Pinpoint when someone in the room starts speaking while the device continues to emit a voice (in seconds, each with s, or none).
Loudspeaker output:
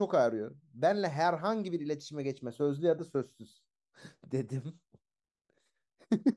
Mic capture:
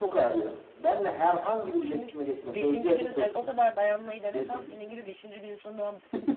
1.8 s